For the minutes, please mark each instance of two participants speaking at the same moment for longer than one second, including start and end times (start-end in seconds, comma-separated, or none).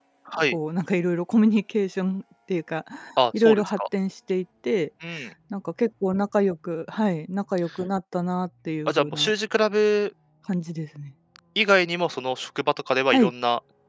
none